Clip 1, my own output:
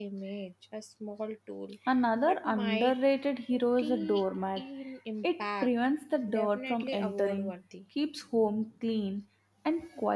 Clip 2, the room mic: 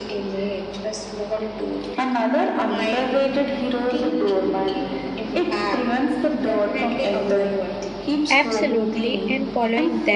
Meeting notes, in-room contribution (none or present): present